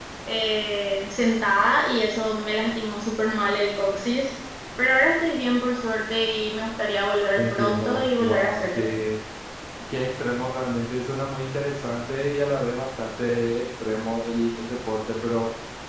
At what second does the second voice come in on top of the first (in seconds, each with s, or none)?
7.4 s